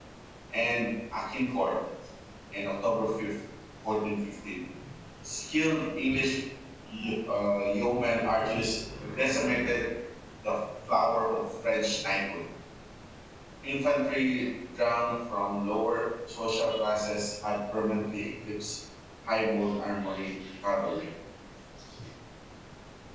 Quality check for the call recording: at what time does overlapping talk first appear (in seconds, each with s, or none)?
none